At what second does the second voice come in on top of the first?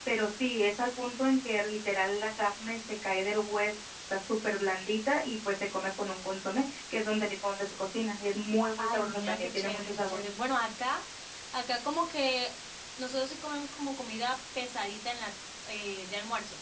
8.8 s

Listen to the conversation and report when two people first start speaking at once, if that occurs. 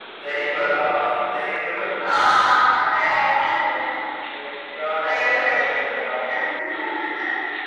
5.0 s

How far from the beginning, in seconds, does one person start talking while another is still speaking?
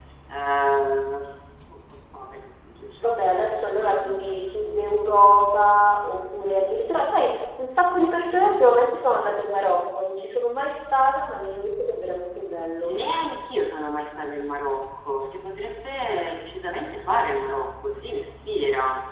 2.9 s

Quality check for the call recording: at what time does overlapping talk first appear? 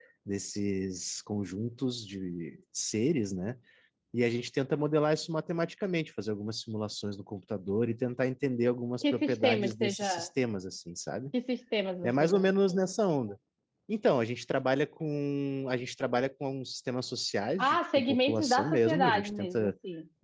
9.0 s

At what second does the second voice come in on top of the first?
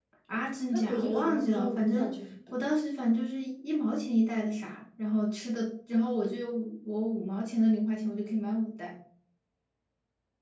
0.7 s

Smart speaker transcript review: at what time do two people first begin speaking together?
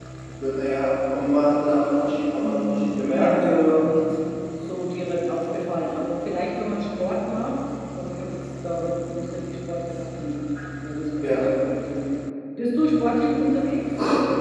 2.4 s

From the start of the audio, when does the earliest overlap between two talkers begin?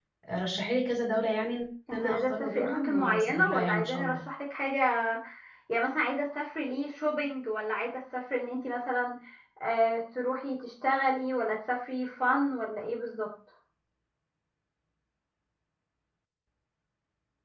1.9 s

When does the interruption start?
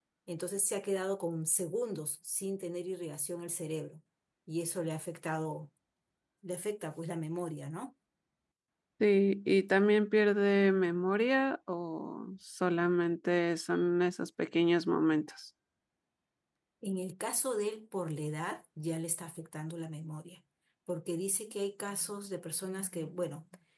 none

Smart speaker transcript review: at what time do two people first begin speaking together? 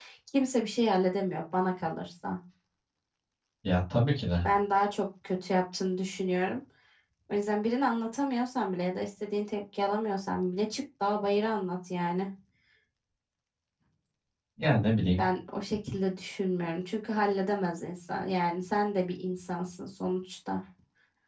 none

